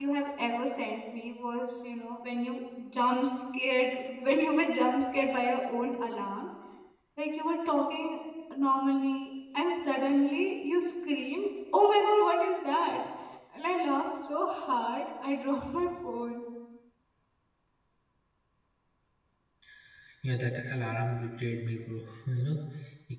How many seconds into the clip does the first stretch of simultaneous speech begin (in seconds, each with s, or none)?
none